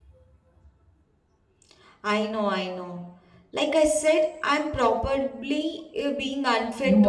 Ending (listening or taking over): taking over